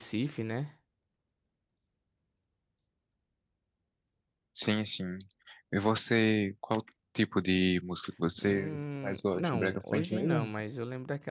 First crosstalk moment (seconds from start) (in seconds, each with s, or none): 8.4 s